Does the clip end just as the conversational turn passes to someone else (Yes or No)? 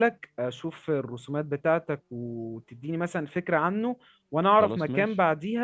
No